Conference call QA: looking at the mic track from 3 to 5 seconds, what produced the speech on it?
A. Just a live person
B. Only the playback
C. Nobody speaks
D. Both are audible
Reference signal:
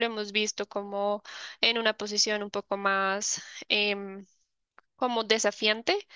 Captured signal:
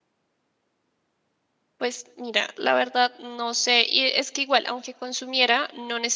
A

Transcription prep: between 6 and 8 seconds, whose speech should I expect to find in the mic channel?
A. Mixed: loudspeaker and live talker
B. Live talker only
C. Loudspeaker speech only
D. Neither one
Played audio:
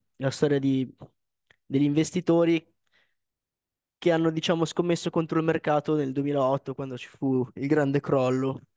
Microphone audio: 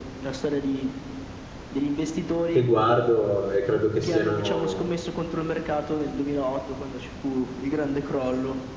C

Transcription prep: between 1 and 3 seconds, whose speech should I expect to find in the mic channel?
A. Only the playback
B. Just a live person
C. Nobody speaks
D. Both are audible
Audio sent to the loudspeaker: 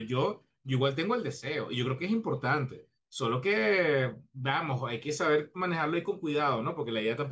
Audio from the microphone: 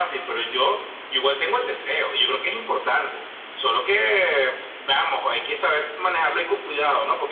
A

